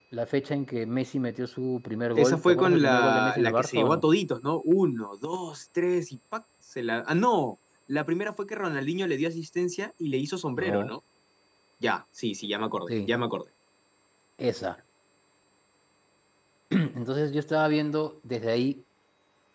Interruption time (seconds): 2.1 s

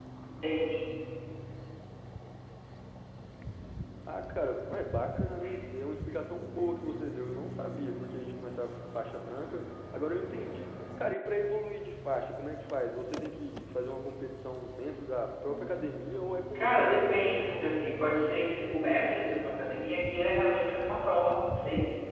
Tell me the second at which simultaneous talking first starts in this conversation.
16.6 s

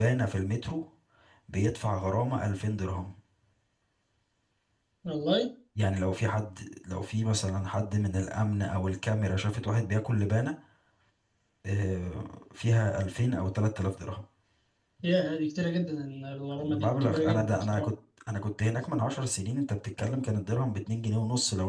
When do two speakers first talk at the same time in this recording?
16.5 s

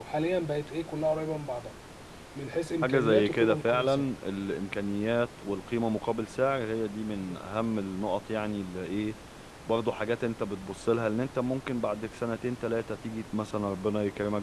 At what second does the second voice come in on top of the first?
2.8 s

